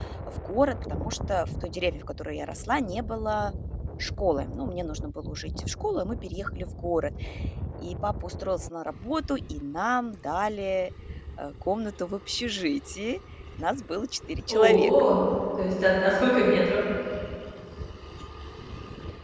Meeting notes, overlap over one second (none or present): none